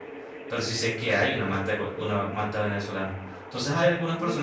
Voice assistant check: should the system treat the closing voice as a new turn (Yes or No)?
No